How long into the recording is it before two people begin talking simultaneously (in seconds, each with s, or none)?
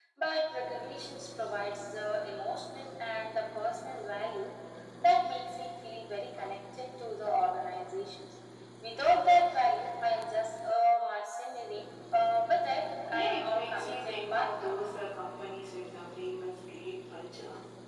13.1 s